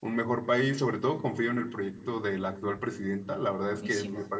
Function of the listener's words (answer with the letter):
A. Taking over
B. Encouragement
B